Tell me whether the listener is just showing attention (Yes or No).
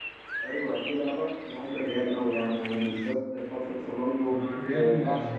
No